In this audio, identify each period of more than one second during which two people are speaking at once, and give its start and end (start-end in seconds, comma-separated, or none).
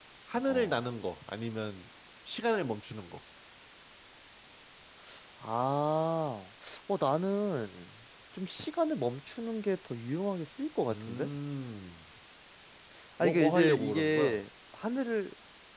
13.2-14.4